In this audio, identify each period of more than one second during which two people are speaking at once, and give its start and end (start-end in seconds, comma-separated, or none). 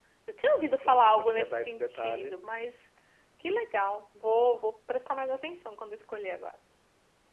0.8-2.4